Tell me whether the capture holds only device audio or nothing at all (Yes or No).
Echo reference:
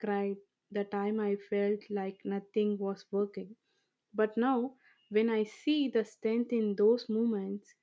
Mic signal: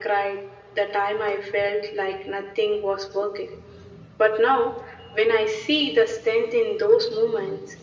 Yes